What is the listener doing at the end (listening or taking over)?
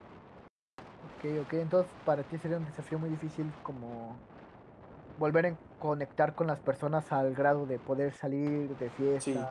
taking over